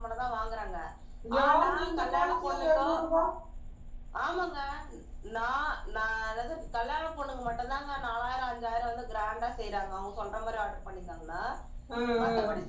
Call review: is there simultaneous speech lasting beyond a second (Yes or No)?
Yes